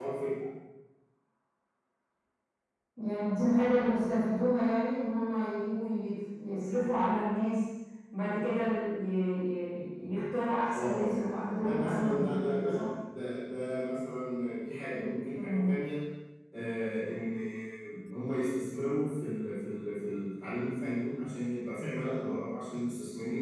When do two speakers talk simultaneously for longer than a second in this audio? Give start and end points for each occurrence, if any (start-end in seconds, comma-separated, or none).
11.6-12.8